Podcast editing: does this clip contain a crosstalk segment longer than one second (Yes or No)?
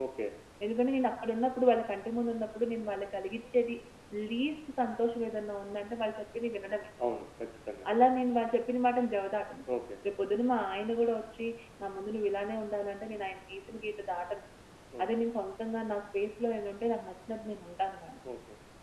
No